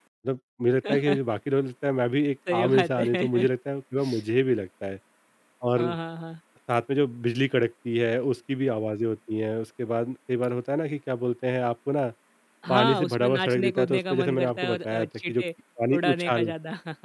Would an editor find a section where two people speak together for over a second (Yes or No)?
Yes